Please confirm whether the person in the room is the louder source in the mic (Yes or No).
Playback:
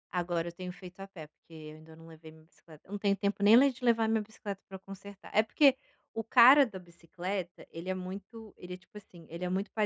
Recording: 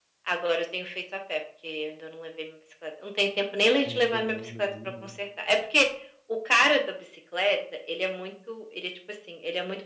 No